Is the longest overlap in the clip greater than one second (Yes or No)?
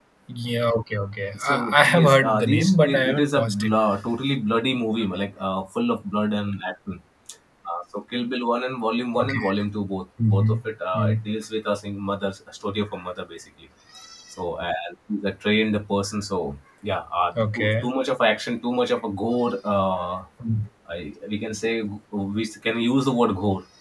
Yes